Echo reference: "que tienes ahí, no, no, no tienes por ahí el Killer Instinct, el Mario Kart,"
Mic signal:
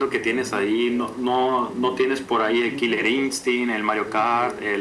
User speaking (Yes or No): Yes